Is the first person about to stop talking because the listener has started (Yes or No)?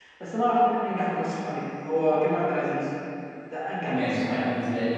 Yes